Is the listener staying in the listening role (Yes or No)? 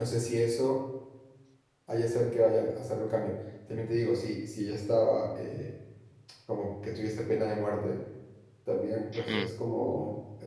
Yes